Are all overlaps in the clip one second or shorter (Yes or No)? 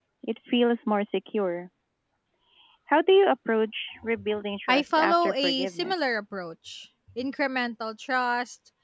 No